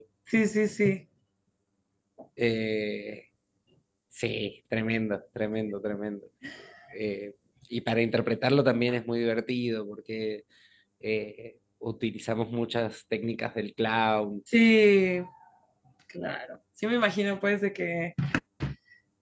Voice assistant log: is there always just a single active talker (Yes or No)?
Yes